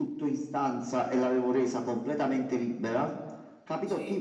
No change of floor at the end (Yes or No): Yes